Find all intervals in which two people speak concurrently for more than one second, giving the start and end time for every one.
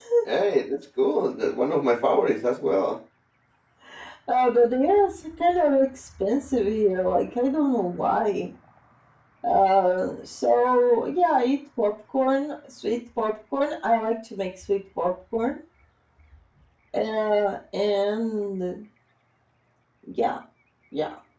none

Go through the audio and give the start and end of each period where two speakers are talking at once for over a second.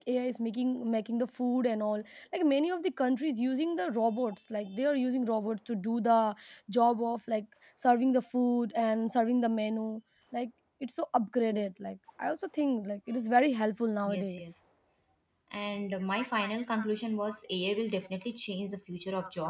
none

